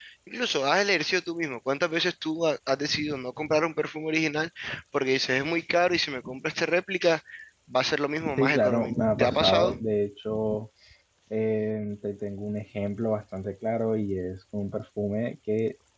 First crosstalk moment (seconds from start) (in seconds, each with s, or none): 8.4 s